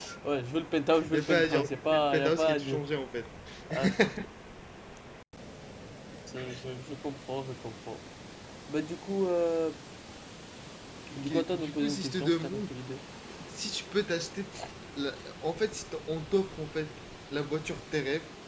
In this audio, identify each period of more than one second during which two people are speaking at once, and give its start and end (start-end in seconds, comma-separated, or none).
1.1-2.8, 11.2-12.6